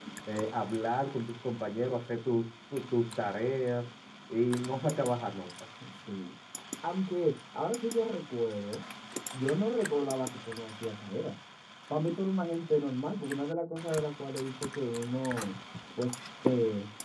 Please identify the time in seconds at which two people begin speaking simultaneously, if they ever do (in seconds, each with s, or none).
none